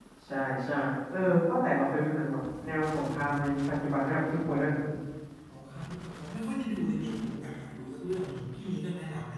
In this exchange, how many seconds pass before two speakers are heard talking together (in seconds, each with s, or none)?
none